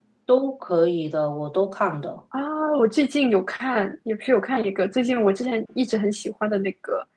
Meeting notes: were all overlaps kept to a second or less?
Yes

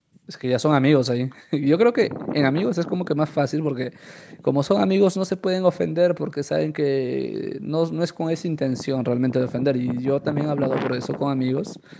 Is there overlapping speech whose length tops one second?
No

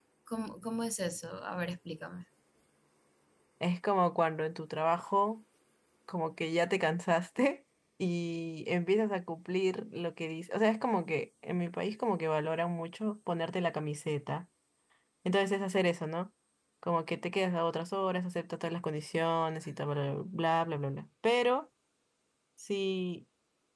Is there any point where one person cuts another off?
No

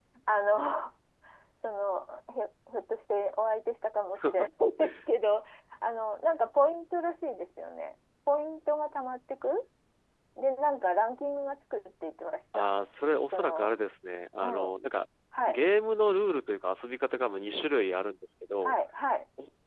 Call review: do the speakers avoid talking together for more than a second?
Yes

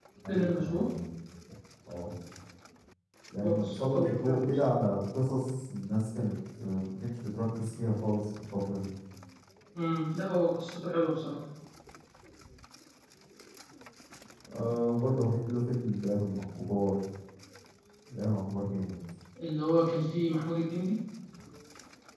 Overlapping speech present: Yes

